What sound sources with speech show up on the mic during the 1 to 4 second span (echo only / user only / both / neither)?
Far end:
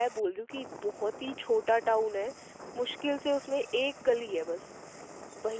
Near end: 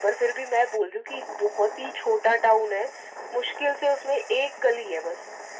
echo only